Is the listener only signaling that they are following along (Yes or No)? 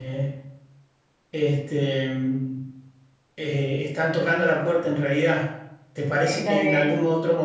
Yes